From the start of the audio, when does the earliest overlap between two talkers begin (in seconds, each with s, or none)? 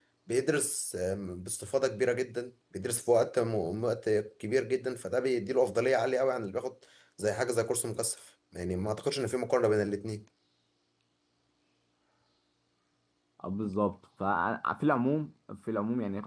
none